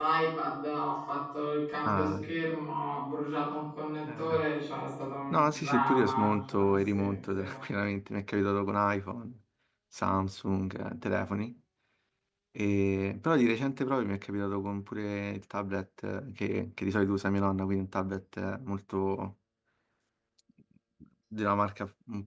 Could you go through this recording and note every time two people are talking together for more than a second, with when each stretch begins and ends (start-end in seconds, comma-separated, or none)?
5.3-7.4